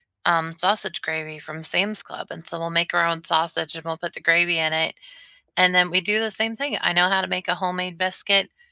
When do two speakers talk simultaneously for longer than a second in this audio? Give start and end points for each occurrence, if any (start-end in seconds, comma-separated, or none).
none